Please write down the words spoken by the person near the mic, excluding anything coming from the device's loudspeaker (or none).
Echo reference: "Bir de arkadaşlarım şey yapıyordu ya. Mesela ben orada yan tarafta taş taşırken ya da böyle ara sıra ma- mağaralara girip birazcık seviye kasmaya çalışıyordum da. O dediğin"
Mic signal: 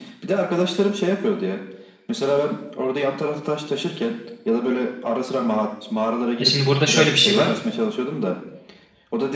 E şimdi burada şöyle bir şey var.